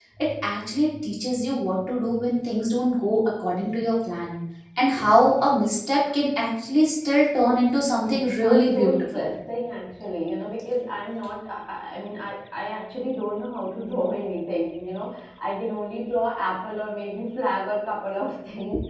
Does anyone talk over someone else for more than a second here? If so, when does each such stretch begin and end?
8.1-9.2

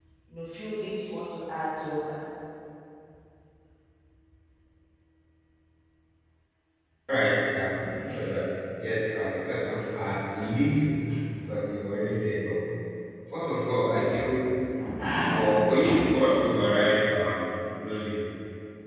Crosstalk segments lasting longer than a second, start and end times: none

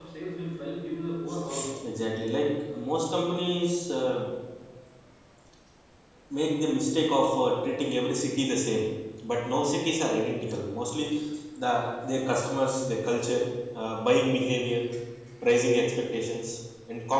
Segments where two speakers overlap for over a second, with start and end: none

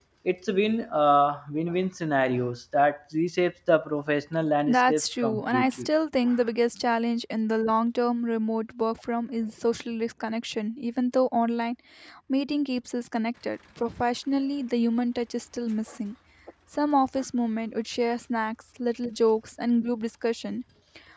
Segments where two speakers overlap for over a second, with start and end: 4.7-5.9

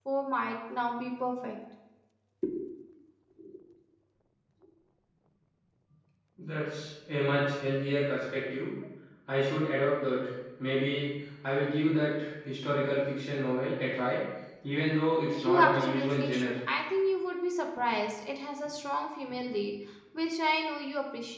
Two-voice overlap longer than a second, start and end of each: 15.3-16.5

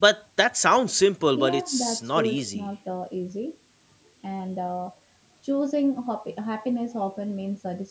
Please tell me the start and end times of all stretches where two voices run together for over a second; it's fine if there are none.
1.3-2.7

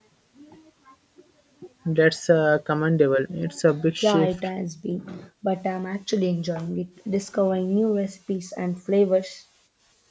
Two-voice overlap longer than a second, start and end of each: none

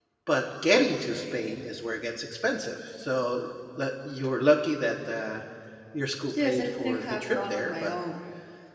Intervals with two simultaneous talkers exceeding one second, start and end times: 6.4-8.0

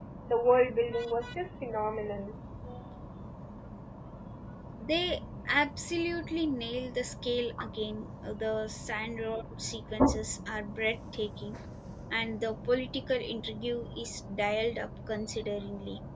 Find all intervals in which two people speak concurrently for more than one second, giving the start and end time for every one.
none

